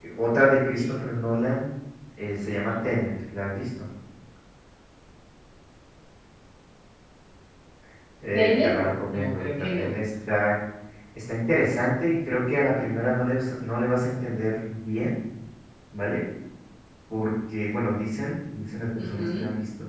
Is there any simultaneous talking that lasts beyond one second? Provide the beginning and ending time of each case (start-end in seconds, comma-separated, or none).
8.3-9.9